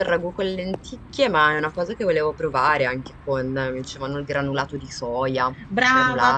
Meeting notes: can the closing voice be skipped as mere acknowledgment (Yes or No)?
No